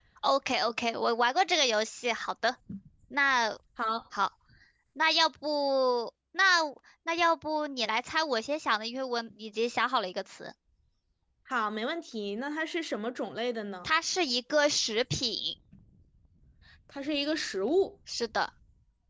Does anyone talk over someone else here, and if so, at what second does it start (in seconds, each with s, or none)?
none